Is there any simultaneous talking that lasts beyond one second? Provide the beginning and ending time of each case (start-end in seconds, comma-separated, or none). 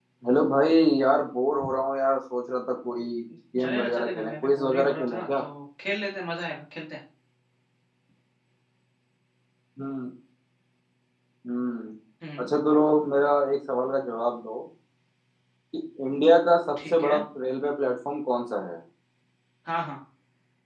3.6-5.4